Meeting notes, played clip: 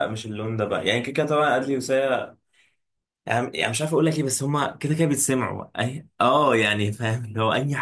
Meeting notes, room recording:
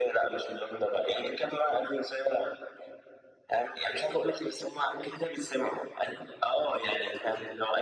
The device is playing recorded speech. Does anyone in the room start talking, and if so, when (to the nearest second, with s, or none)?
none